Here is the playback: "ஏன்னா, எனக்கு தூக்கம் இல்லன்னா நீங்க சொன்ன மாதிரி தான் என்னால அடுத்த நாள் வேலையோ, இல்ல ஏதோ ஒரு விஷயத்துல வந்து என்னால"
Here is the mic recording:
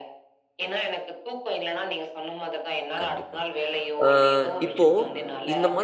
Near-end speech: present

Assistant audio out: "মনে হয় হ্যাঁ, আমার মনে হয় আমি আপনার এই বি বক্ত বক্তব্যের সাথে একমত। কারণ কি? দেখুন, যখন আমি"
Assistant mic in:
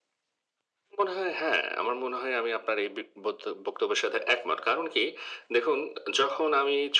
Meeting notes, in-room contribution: none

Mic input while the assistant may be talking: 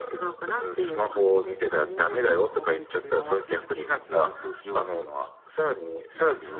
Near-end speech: present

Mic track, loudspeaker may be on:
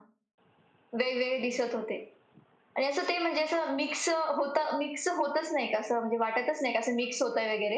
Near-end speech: none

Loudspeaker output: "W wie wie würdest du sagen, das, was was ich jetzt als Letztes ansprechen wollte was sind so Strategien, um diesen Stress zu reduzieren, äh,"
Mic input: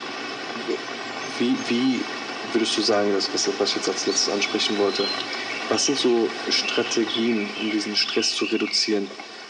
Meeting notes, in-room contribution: none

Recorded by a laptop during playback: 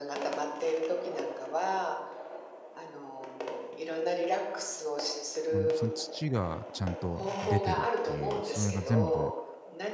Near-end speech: present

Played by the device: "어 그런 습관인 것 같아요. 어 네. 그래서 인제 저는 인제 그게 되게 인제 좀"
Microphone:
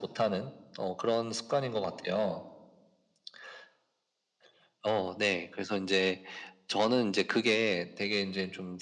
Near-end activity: none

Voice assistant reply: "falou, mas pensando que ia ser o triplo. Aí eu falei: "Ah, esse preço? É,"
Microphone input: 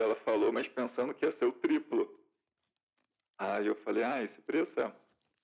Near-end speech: none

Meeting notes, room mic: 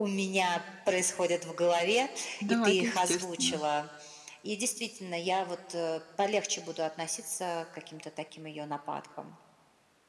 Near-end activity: present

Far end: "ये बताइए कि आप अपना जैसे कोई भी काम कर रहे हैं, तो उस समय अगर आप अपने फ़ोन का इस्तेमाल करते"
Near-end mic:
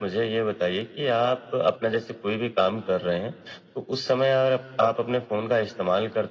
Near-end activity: none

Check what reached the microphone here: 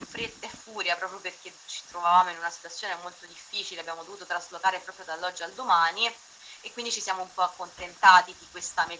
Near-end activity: none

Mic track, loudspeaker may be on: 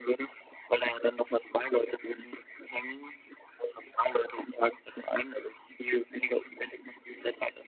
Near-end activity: none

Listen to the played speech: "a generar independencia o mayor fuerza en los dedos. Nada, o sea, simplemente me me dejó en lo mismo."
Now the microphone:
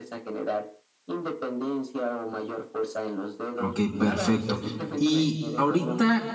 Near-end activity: present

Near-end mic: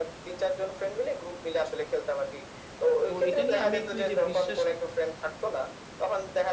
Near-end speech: present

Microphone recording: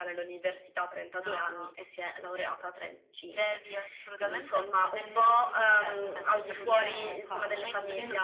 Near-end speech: present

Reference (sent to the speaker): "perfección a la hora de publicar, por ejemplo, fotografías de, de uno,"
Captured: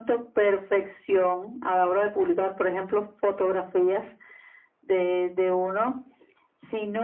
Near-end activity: none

